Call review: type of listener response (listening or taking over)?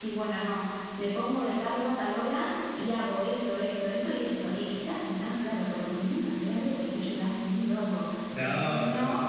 listening